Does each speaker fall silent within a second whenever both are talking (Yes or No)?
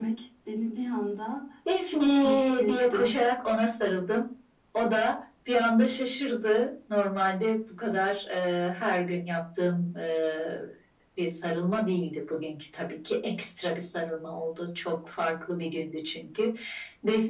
No